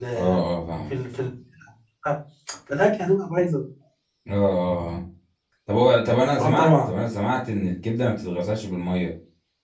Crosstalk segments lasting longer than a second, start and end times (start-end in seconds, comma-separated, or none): none